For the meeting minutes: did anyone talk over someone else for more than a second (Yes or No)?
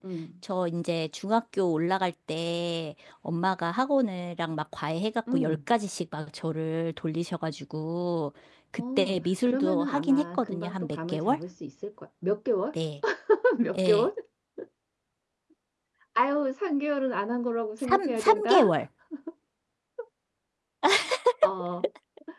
Yes